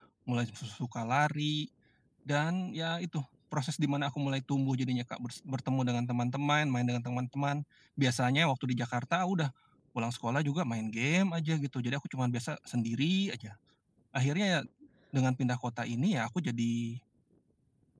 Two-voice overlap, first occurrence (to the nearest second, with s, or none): none